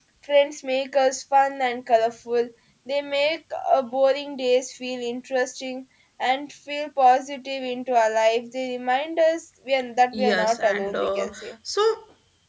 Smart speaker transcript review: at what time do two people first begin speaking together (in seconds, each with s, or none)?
10.1 s